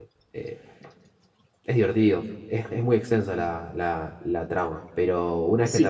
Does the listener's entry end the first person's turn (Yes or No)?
Yes